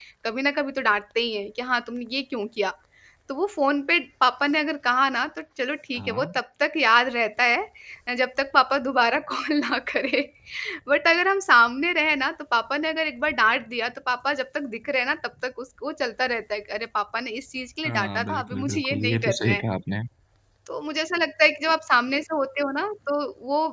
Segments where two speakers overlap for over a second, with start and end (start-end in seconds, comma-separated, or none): 17.9-19.6